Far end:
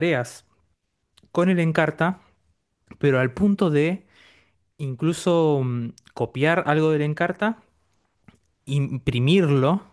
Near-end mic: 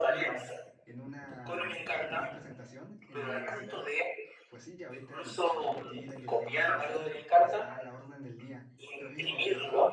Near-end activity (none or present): present